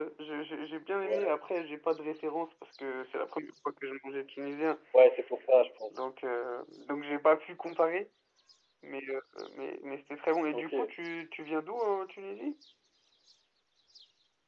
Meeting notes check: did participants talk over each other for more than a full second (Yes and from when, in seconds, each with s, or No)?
No